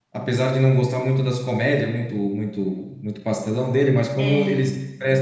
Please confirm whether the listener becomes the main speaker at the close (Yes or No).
No